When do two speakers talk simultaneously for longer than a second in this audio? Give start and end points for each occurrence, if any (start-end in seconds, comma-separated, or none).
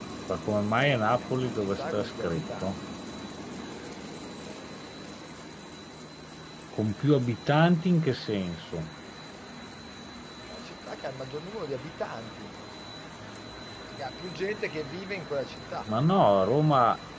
1.2-2.8